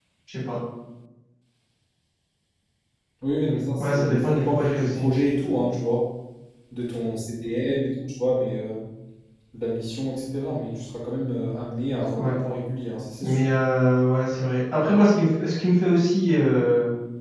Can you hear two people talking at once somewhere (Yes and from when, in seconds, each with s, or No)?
Yes, from 3.8 s